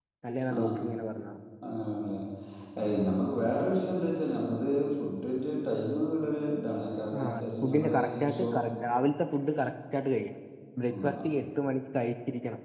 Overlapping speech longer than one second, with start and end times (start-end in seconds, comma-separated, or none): 7.2-8.5